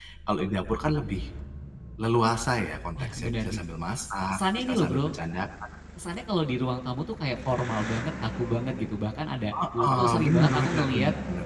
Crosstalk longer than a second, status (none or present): present